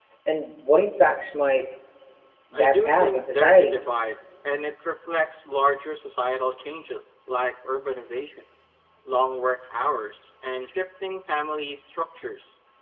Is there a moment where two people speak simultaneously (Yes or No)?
Yes